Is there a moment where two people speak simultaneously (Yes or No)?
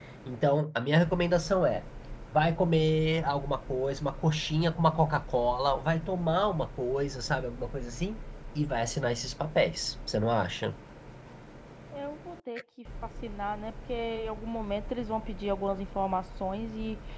No